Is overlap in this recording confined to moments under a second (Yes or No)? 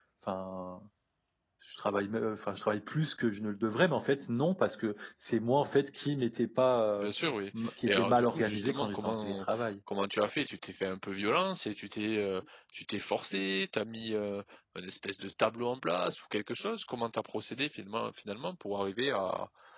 No